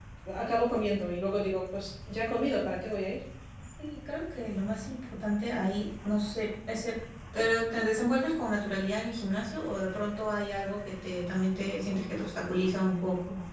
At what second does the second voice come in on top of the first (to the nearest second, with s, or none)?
none